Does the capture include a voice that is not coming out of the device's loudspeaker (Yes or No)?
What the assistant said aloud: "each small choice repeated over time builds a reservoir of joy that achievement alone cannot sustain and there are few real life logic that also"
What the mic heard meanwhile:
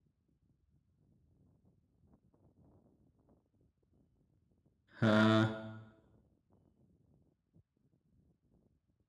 Yes